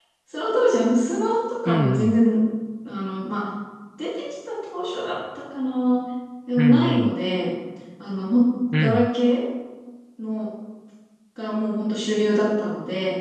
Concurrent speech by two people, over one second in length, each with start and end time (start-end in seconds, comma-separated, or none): none